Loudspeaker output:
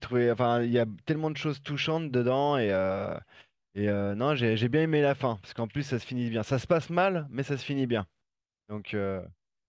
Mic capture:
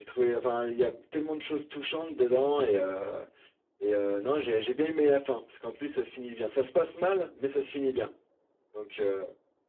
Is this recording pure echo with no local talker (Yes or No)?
Yes